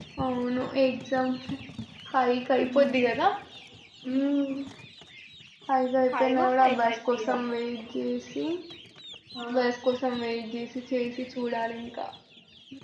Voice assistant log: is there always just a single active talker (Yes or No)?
No